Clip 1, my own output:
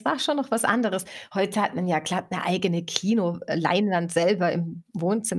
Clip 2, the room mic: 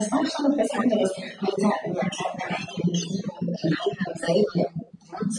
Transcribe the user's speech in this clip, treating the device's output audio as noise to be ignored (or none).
none